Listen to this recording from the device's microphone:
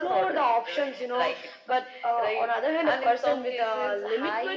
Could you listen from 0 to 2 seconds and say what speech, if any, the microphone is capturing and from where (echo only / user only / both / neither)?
echo only